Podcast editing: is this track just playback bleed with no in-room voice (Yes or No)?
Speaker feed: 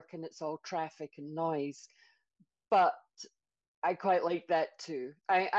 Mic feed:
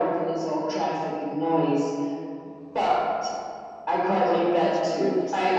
No